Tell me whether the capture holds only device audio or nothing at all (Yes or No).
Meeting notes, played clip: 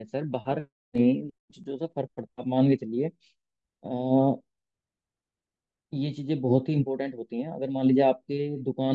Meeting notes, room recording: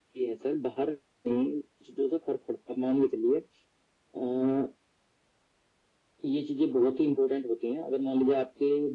Yes